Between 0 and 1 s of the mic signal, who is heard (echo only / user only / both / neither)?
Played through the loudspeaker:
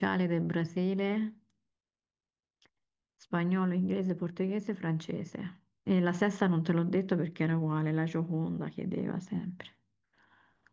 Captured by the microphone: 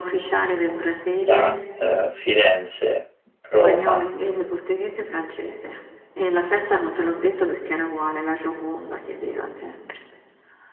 echo only